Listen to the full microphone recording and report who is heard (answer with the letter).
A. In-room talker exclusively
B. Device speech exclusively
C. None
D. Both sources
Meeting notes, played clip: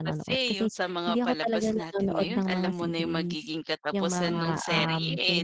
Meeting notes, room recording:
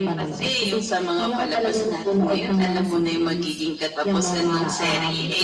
B